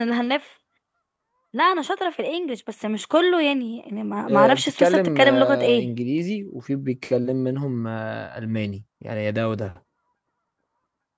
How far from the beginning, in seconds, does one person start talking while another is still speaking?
4.2 s

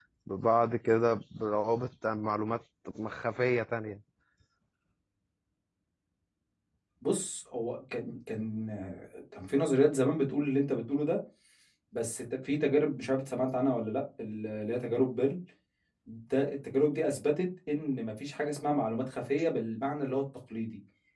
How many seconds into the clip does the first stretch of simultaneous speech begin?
none

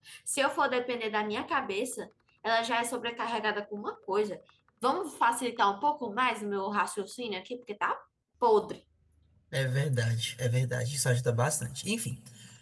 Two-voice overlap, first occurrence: none

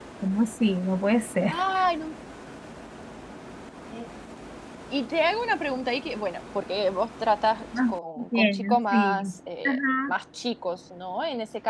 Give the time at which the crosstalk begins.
7.7 s

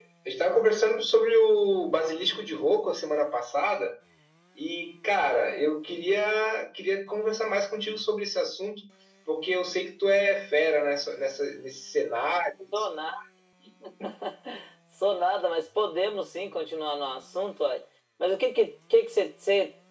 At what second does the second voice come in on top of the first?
none

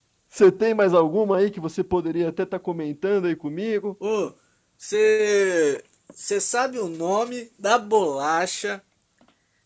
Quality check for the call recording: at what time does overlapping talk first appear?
none

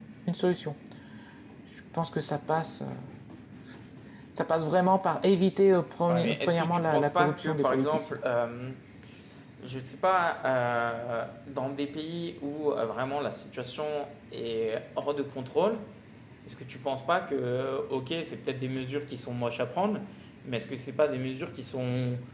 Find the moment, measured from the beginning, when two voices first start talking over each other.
6.1 s

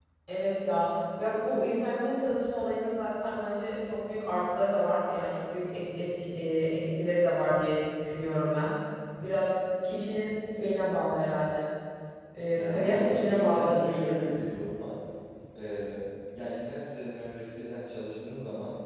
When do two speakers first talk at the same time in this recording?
12.6 s

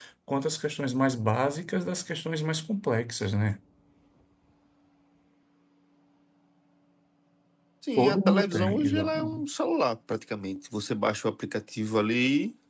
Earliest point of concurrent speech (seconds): 8.0 s

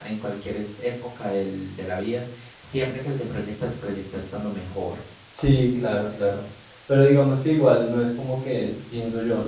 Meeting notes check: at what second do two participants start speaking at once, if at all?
none

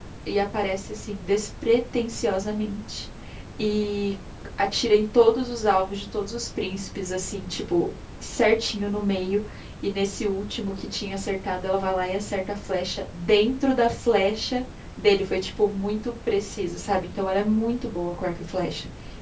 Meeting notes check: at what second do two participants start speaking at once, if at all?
none

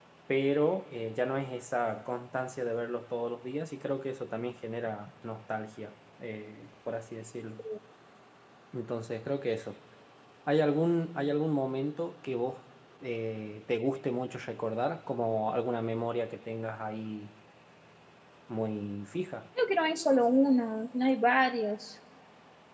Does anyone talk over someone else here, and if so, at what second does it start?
none

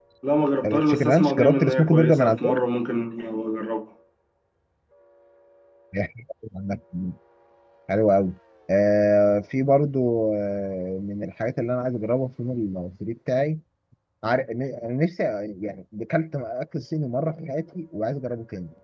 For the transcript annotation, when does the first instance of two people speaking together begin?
0.7 s

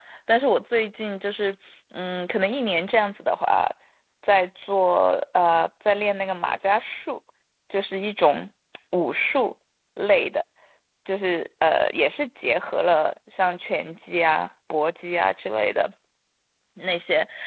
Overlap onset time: none

